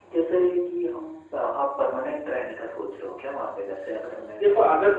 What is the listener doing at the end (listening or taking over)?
taking over